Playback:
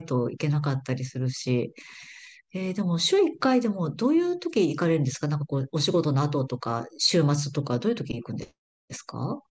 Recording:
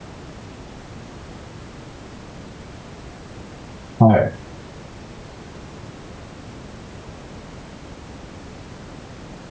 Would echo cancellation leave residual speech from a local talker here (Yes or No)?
Yes